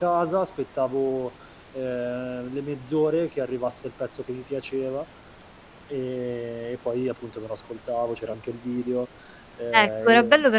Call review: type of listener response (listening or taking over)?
taking over